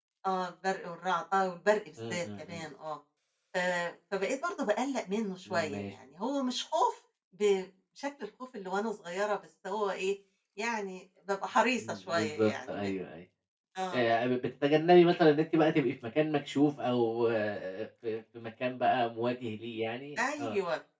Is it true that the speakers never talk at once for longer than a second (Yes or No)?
No